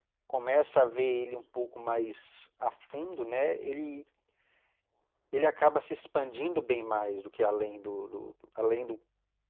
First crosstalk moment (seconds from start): none

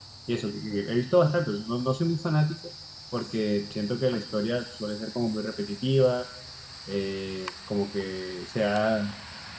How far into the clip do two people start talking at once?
none

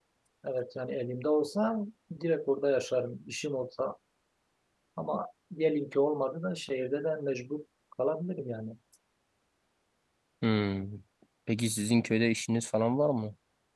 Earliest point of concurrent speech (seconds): none

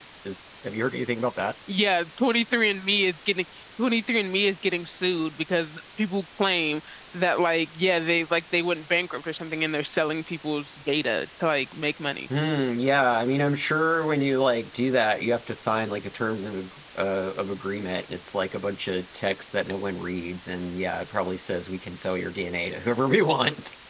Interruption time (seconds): none

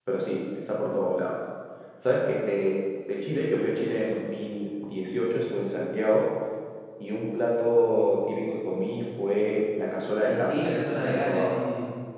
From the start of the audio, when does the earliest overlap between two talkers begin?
10.2 s

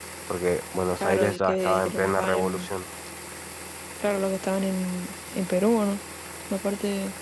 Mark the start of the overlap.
1.0 s

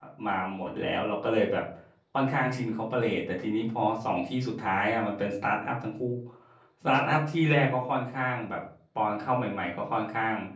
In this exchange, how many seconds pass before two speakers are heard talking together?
none

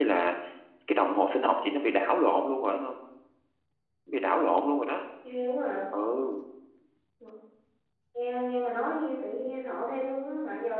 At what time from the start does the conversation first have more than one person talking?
none

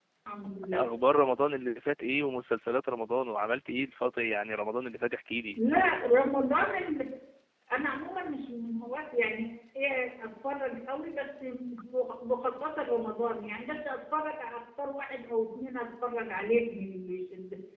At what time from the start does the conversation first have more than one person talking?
none

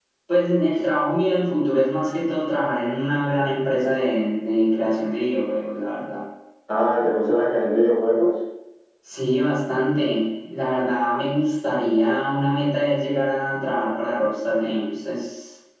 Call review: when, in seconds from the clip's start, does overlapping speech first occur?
none

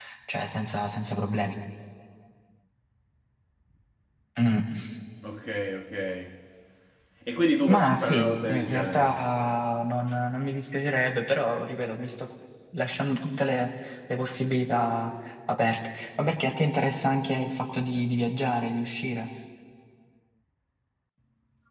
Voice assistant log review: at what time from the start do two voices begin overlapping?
7.7 s

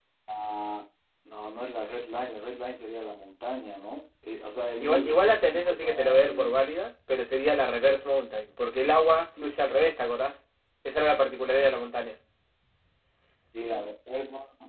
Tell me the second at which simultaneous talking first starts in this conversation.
4.8 s

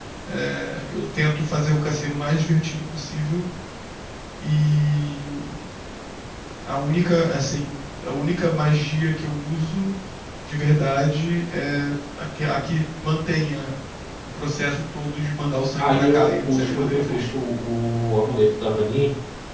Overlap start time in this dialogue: 15.8 s

